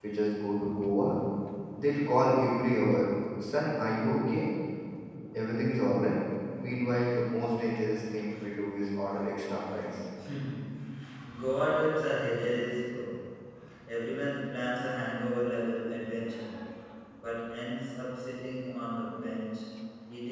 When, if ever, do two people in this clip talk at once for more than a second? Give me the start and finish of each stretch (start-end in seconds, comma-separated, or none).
none